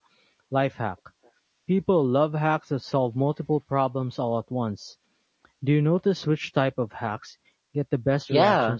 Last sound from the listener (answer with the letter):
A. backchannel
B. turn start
B